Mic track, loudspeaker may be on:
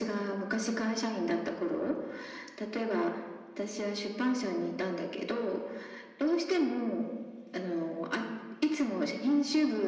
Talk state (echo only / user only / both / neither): echo only